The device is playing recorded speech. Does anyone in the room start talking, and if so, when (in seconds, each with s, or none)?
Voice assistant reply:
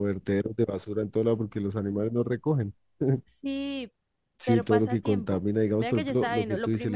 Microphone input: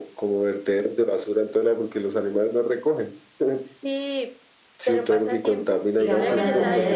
6.0 s